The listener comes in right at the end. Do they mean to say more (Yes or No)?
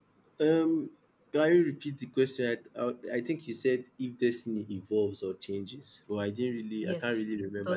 Yes